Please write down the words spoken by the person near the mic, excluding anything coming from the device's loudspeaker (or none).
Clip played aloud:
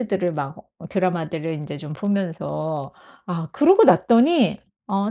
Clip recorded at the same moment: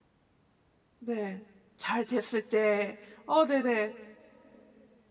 네. 잘 됐을 때. 어 네네.